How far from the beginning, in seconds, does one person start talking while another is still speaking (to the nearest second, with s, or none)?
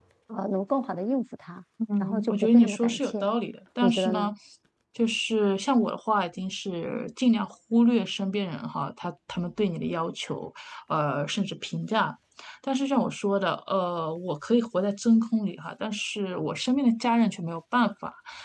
2 s